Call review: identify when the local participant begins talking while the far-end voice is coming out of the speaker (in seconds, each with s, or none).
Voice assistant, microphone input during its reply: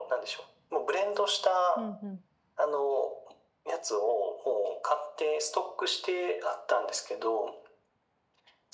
1.7 s